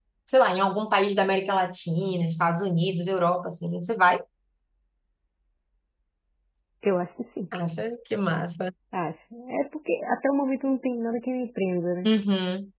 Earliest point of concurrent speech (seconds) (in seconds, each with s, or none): none